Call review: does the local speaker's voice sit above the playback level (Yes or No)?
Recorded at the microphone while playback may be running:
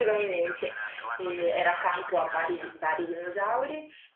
Yes